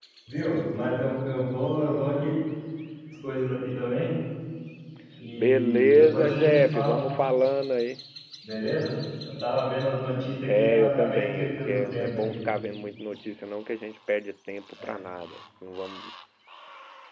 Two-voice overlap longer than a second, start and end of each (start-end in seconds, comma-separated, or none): 5.4-7.0, 10.6-12.4